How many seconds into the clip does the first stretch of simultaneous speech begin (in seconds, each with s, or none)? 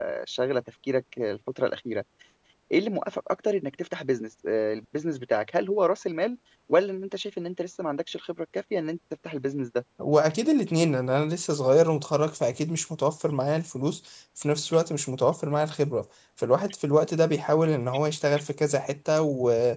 none